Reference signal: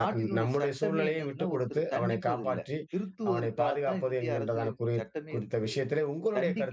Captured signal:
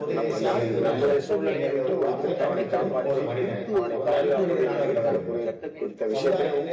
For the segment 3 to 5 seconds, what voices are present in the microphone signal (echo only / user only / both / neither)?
both